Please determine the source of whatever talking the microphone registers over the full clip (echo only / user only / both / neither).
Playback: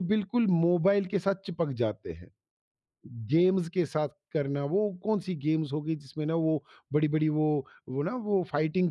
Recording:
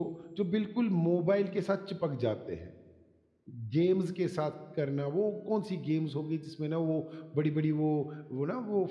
echo only